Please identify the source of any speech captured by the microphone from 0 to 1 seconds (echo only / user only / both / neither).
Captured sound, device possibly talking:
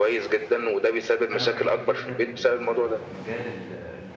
echo only